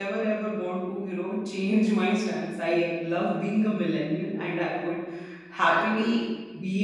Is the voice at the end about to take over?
No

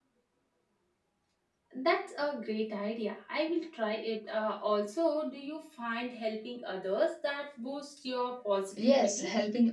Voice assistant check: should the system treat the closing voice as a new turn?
Yes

